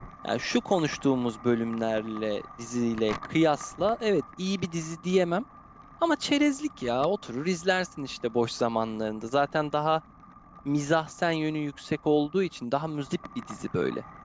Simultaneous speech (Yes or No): No